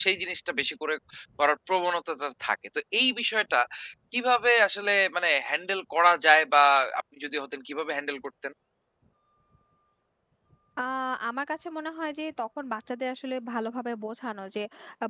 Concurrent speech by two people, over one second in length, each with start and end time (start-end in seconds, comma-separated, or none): none